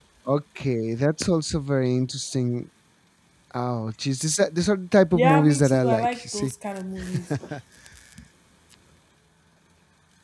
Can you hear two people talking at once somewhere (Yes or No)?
Yes